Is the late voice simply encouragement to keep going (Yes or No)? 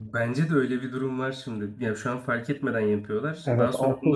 No